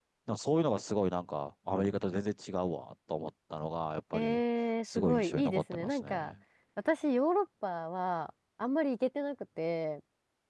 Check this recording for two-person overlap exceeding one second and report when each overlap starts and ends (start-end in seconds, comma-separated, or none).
4.8-6.3